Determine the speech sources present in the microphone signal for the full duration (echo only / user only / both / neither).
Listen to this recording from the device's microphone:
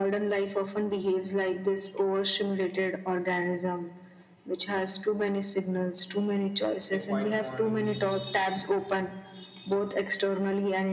both